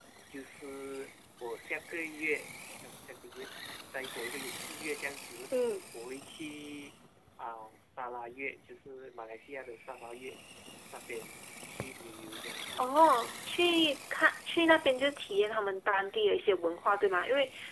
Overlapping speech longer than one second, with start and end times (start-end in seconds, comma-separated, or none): none